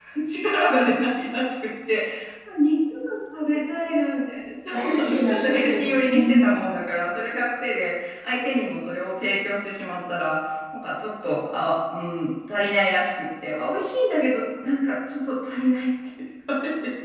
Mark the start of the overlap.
4.7 s

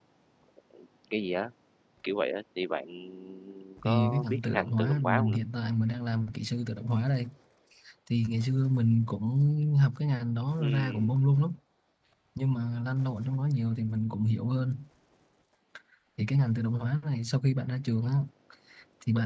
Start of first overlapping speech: 3.8 s

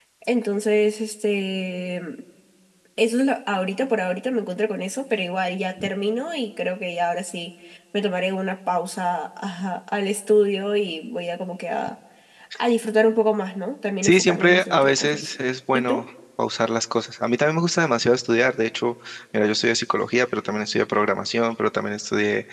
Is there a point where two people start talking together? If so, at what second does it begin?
14.0 s

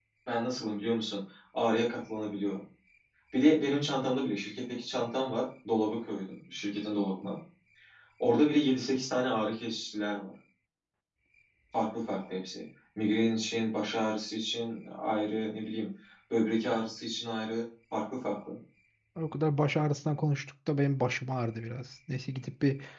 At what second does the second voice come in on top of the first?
none

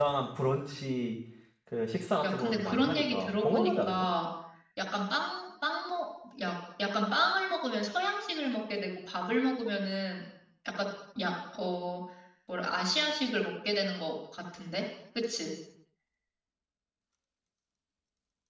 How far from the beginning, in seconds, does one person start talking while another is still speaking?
2.2 s

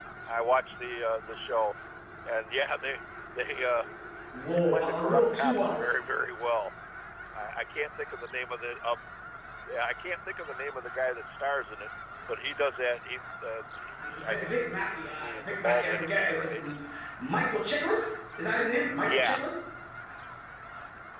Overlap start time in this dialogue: 4.5 s

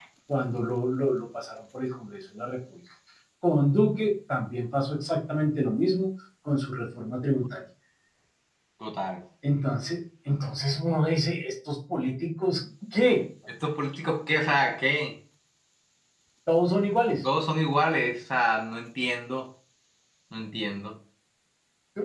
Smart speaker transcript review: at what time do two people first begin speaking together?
none

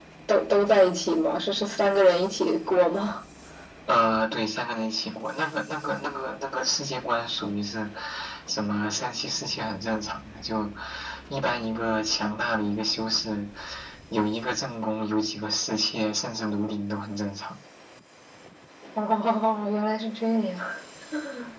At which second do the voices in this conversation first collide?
none

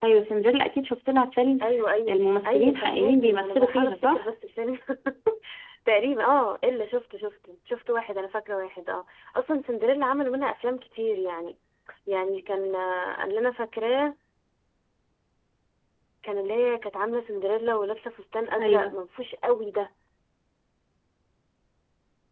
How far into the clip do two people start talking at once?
2.1 s

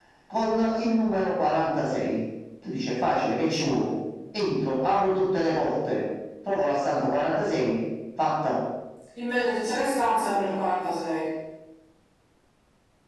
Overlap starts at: none

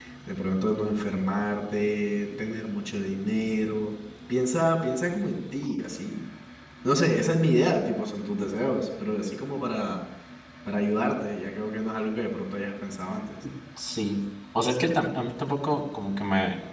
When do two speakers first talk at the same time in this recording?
none

